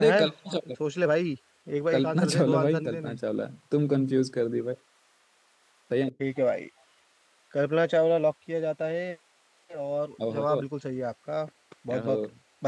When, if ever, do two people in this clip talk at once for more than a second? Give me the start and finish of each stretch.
1.9-3.1

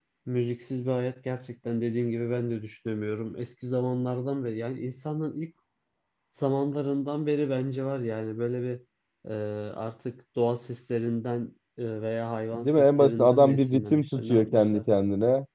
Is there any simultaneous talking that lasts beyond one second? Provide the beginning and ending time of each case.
12.5-14.8

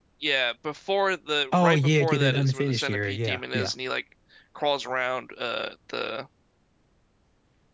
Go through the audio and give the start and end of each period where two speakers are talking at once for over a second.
1.6-3.7

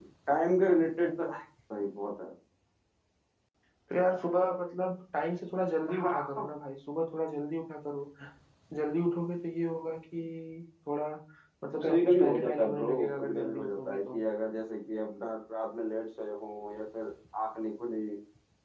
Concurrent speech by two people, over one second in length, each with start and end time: 11.8-14.2

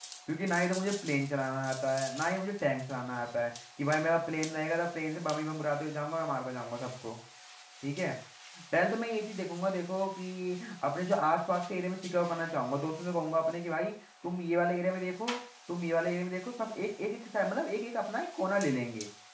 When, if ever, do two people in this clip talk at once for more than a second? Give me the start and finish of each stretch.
none

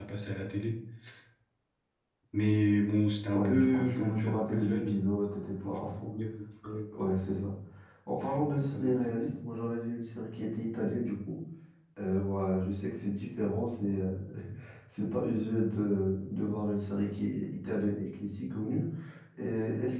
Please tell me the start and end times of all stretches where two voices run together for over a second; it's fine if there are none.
3.3-5.0, 8.2-9.4

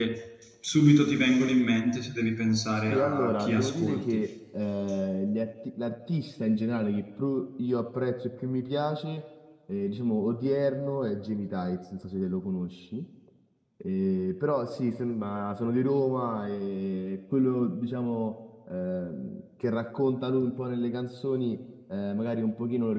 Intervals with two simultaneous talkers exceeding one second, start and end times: 2.9-4.2

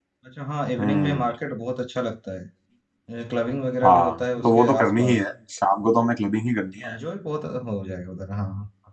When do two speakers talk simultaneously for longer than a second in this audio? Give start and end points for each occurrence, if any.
3.8-5.2

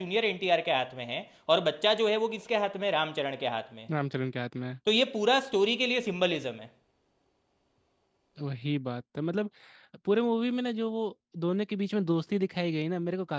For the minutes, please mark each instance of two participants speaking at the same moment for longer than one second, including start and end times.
none

